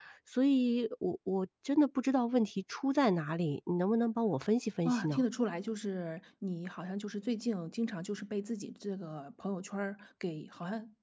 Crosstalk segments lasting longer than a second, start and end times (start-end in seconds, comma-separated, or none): none